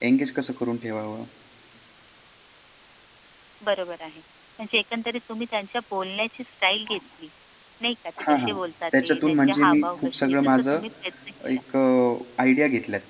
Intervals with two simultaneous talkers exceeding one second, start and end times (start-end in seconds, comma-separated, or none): 9.0-10.8